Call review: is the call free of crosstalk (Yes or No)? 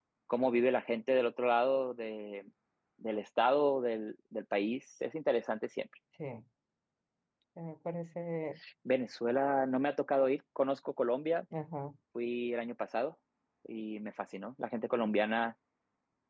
Yes